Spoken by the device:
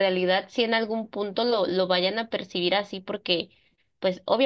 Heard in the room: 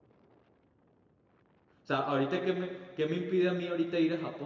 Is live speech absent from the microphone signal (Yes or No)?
No